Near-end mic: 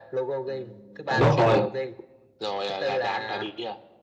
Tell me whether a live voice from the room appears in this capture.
Yes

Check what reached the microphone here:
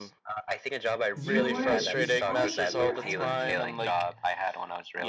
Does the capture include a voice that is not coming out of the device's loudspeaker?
Yes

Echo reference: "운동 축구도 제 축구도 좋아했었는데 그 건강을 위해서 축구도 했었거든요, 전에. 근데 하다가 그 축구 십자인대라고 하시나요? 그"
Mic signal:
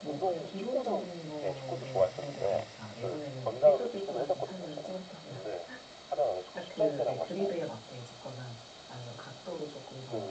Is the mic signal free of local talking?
No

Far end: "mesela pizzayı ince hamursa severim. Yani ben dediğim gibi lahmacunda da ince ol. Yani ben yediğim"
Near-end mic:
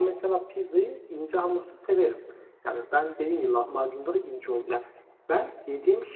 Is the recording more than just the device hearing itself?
No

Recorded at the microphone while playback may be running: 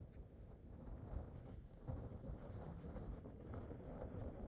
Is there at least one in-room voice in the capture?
No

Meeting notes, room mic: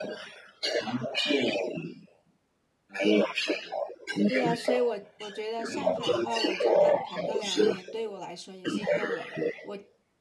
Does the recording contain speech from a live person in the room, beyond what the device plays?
Yes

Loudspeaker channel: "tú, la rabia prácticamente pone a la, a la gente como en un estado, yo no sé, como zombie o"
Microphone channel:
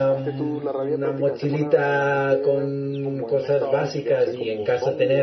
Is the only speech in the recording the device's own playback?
No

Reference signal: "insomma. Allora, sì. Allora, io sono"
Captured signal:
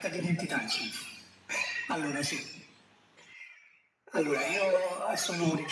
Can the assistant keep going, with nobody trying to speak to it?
Yes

